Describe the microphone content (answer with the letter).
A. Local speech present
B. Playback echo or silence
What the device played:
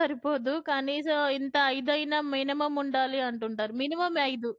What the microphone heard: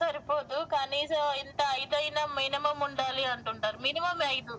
B